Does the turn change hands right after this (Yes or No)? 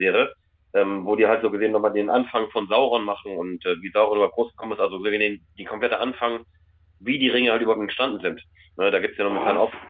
No